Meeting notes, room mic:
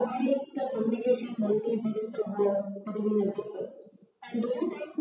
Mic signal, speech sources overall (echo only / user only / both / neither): echo only